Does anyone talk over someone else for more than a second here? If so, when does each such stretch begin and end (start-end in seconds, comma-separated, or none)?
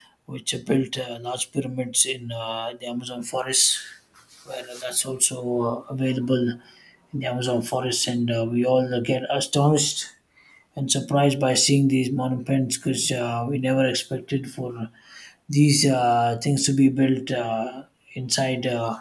none